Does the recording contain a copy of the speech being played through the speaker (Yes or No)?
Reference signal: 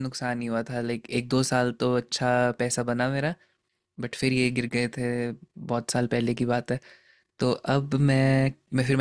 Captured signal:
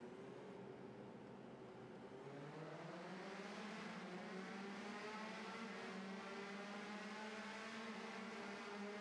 No